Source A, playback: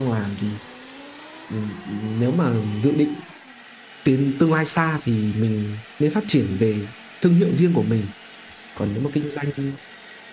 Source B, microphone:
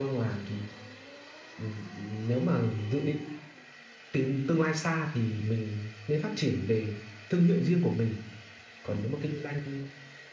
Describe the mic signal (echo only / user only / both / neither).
echo only